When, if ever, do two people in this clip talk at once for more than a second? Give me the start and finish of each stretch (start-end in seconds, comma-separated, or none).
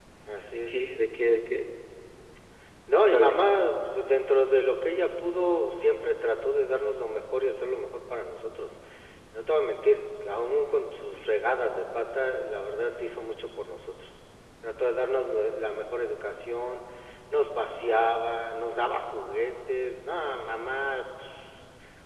none